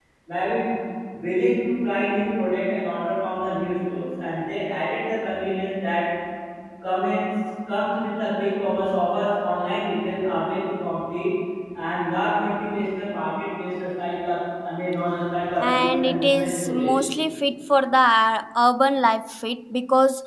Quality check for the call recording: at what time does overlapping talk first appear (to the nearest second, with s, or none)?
16 s